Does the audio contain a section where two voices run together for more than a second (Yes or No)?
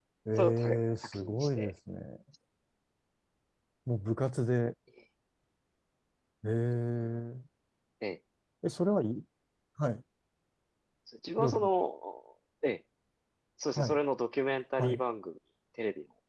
Yes